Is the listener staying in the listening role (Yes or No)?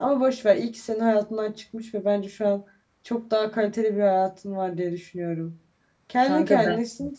Yes